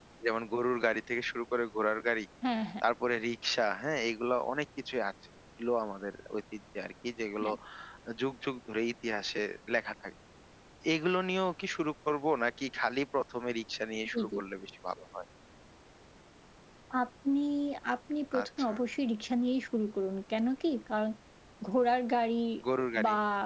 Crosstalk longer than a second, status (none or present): none